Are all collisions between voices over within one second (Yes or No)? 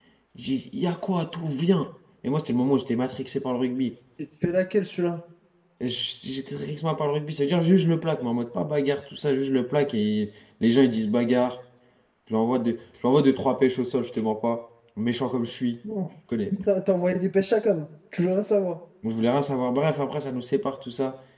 Yes